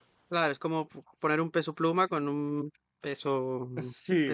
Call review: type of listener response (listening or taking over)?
taking over